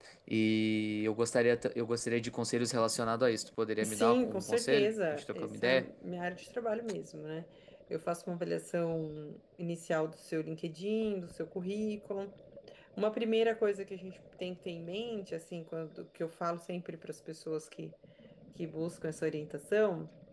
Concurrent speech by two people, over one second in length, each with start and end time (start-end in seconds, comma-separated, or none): 3.8-5.8